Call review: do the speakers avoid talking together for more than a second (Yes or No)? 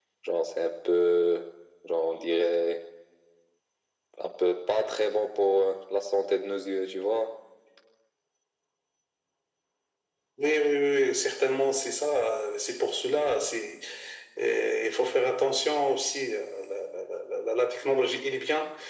Yes